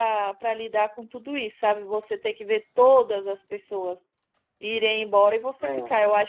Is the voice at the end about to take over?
No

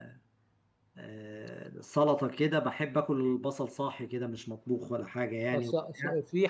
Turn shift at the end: Yes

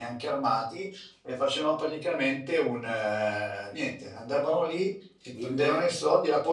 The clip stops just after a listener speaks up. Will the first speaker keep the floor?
Yes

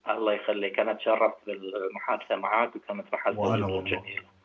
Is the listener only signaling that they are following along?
Yes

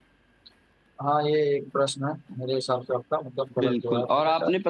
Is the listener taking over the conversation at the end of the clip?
Yes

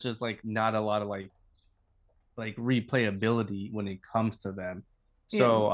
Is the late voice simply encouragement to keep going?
Yes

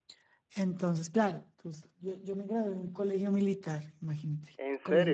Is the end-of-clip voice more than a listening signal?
No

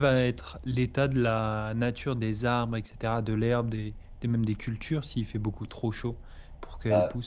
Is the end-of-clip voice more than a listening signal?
Yes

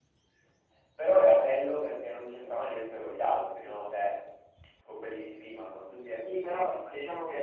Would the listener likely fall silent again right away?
No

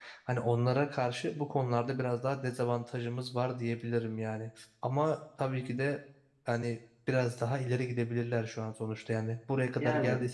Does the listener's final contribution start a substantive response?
No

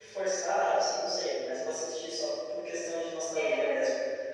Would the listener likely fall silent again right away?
No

